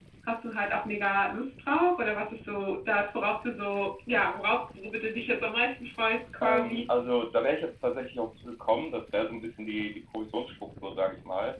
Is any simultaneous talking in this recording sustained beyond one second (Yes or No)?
No